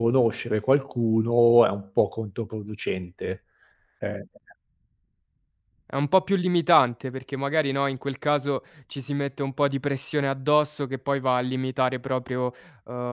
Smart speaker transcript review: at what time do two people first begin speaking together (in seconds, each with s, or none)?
none